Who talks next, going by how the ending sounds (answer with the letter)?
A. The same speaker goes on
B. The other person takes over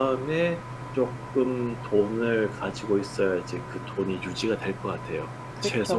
B